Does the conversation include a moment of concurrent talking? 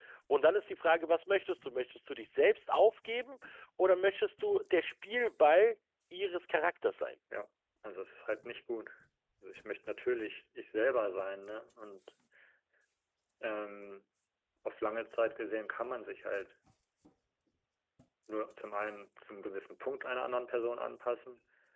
No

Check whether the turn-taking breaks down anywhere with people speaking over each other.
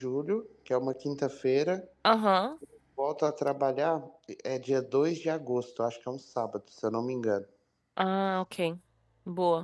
No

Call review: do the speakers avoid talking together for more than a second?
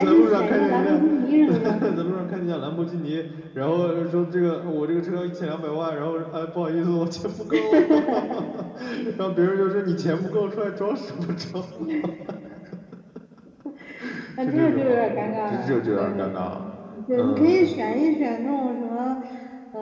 No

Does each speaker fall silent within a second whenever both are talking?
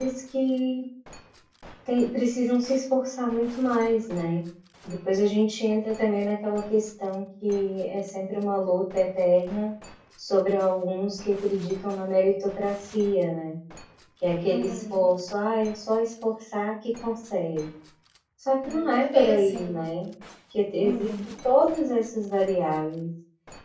No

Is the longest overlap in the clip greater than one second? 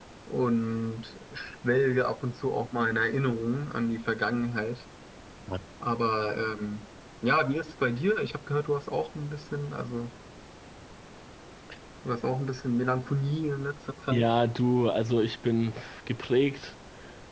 No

